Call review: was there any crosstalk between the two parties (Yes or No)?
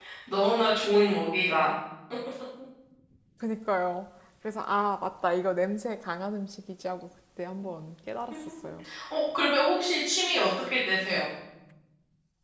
No